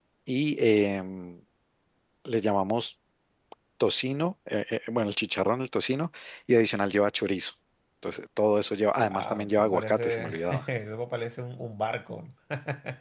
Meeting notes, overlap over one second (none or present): present